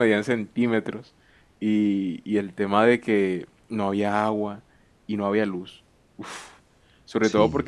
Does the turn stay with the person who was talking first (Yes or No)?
Yes